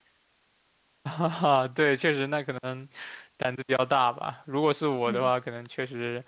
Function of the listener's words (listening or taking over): listening